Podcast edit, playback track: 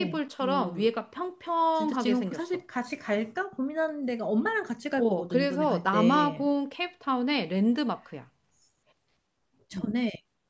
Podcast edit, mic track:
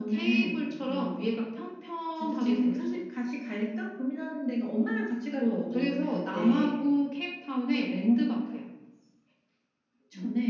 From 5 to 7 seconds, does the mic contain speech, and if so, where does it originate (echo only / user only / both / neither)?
echo only